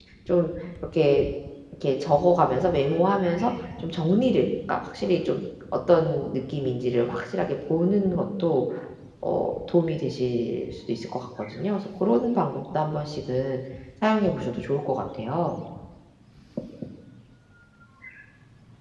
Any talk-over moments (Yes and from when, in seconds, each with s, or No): No